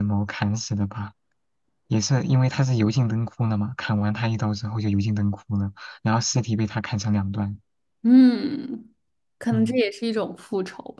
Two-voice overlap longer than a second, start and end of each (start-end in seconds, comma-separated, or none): none